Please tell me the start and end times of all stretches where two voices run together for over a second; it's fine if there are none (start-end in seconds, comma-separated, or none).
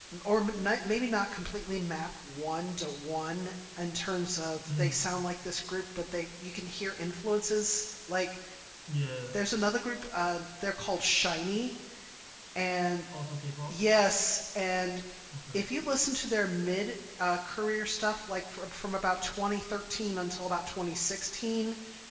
none